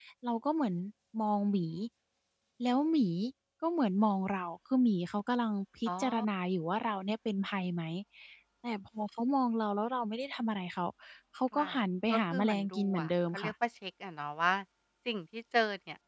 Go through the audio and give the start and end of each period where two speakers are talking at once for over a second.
12.1-13.5

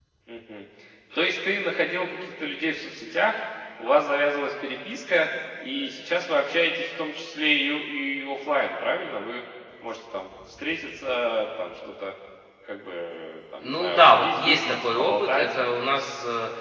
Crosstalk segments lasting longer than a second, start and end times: 13.6-15.5

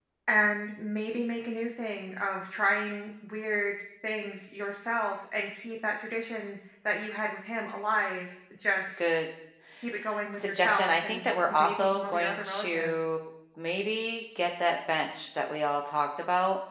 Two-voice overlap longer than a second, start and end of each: 10.3-13.1

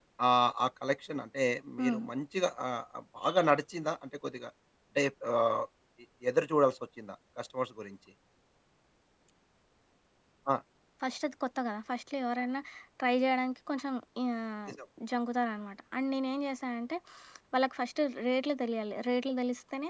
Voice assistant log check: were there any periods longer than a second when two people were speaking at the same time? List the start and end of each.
none

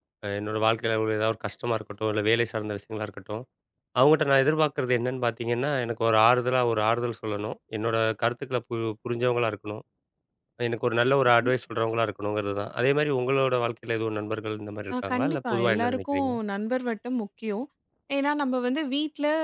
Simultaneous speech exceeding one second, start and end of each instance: 15.1-16.3

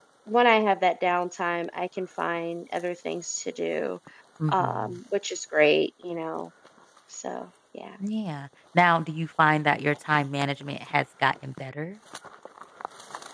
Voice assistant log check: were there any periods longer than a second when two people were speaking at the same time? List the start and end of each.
none

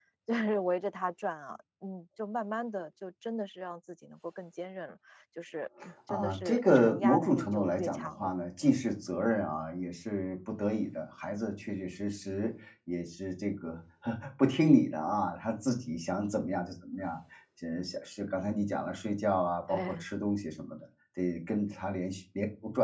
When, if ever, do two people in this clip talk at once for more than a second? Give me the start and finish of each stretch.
6.1-8.3

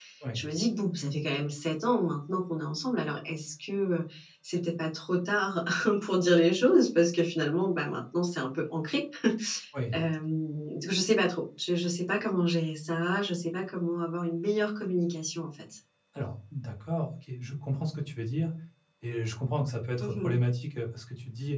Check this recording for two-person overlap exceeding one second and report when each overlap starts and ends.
none

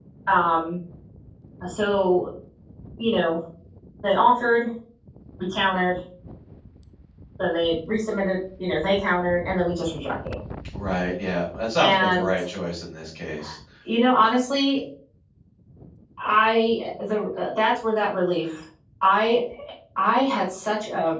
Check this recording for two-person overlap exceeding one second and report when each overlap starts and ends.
none

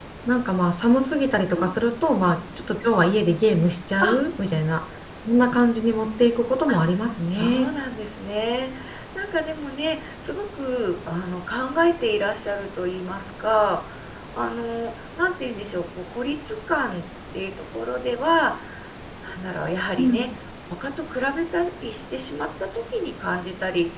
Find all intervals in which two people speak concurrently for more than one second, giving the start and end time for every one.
none

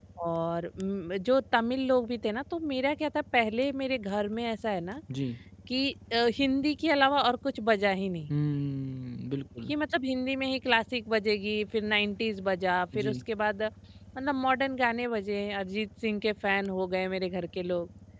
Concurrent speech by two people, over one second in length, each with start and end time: none

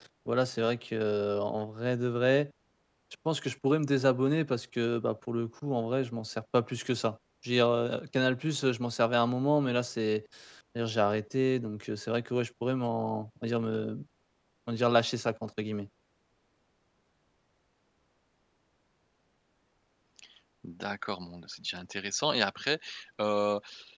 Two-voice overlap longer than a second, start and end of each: none

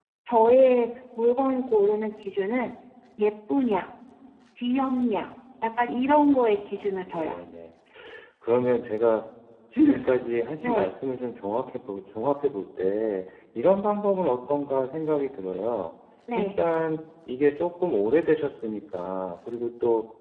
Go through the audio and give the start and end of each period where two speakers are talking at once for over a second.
6.0-7.3

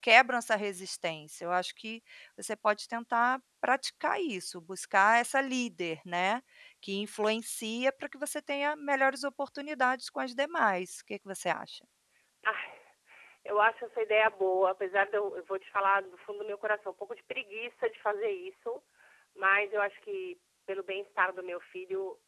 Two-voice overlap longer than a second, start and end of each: none

